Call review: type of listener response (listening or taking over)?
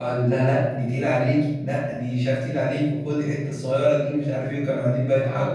taking over